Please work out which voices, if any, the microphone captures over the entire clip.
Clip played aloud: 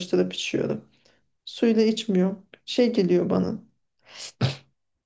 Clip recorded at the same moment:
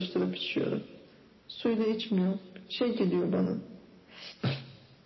echo only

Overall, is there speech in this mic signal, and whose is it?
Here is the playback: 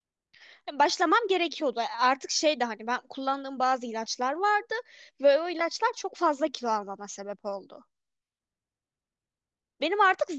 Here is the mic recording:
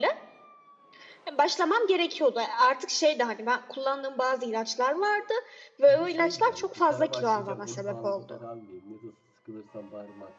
both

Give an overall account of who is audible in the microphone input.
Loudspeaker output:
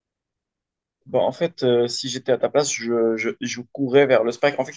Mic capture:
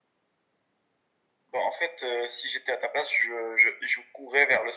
echo only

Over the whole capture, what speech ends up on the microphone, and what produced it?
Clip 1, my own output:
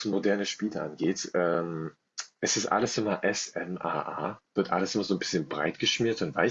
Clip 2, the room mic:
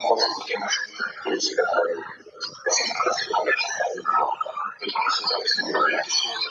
echo only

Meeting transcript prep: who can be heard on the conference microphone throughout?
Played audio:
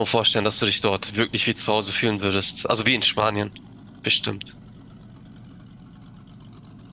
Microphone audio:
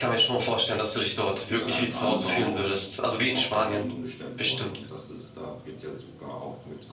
both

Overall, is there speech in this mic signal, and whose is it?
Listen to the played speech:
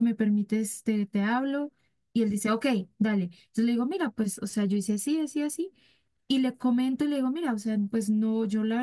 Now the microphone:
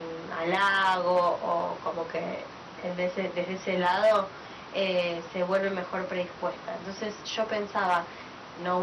user only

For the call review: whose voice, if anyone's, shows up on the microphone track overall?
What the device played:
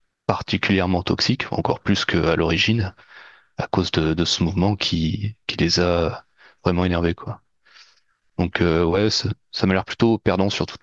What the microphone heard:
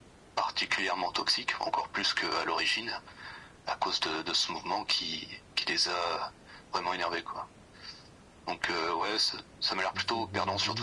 both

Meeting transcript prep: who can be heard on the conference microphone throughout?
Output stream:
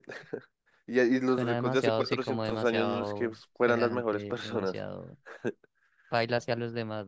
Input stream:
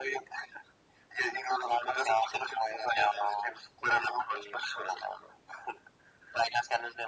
echo only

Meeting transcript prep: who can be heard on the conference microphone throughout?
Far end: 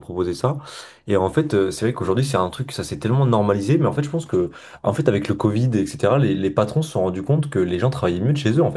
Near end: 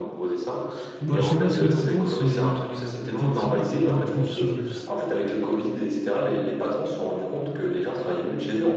both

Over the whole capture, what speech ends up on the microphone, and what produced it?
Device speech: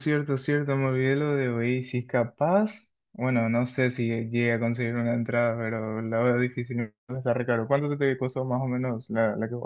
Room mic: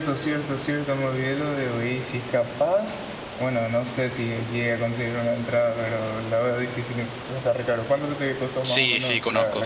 both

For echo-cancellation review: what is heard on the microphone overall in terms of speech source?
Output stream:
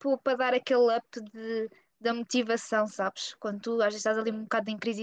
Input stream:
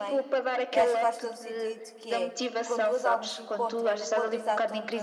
both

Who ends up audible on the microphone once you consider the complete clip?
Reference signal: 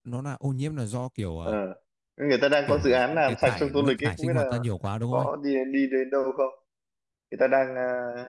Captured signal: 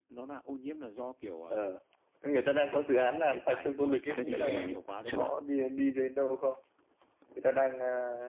both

